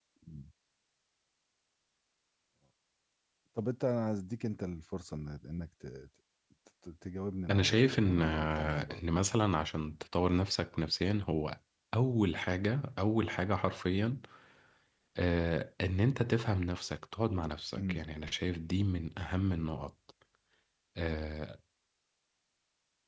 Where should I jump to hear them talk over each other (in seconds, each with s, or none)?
7.5 s